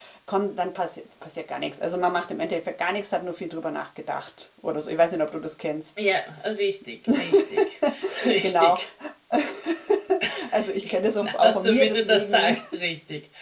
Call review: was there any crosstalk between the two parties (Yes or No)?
Yes